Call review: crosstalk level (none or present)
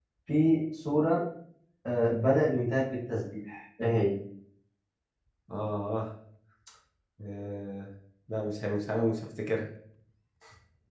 none